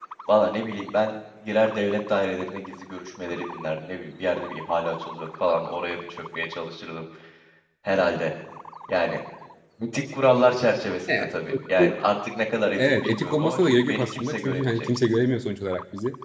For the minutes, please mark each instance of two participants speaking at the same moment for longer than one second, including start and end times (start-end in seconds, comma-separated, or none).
12.8-14.9